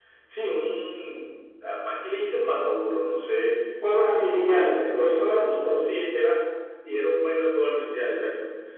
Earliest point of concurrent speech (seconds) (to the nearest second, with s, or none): 4 s